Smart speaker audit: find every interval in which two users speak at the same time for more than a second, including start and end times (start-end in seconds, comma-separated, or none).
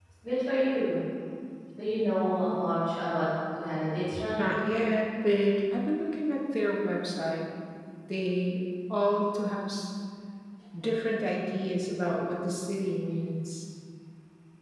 none